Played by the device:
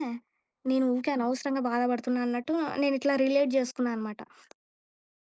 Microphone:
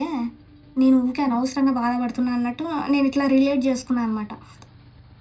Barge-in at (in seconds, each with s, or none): none